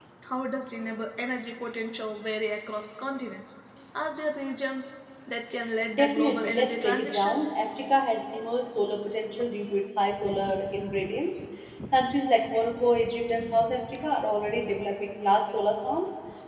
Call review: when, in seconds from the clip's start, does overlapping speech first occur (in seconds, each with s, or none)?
5.9 s